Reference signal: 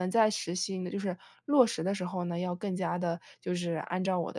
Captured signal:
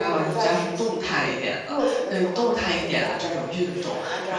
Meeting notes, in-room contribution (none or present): present